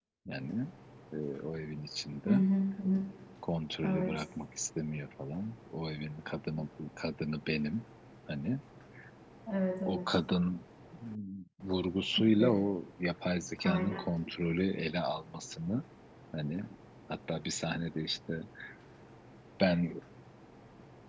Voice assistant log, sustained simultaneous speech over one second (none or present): none